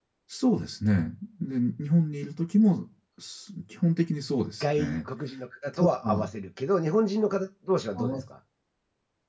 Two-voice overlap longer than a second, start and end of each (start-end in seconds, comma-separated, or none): none